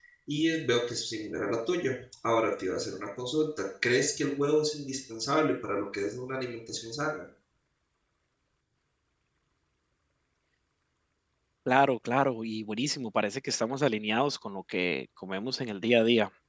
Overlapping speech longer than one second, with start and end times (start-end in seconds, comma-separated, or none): none